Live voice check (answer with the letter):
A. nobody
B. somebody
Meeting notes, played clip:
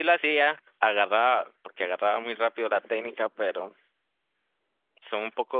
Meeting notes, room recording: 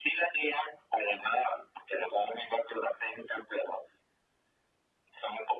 A